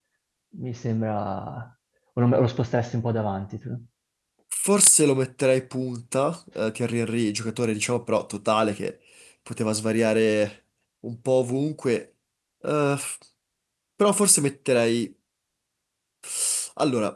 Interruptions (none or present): none